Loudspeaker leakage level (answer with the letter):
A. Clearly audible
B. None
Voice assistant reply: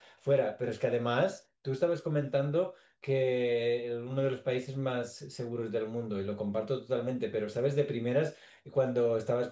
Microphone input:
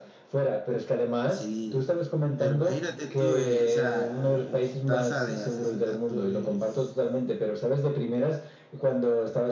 A